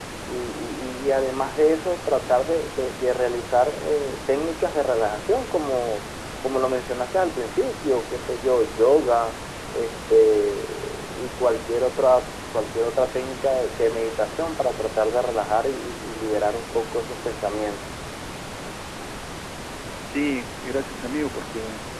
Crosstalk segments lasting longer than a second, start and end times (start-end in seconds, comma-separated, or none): none